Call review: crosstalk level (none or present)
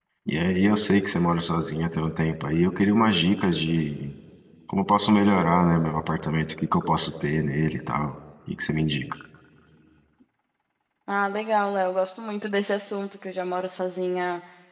none